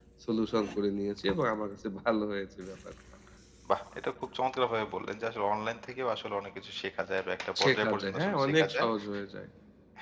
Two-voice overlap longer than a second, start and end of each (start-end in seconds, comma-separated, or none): 7.6-8.9